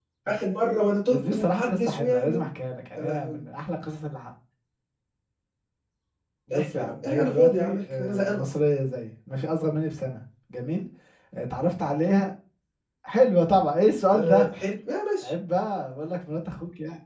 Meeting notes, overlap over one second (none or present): present